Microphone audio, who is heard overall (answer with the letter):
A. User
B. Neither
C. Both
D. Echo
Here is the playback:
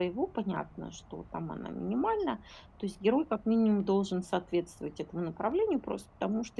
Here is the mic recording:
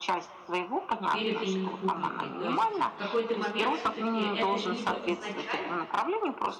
C